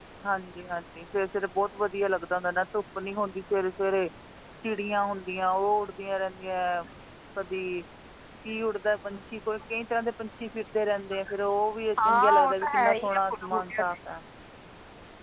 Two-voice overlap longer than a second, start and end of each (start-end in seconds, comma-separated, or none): 12.0-13.8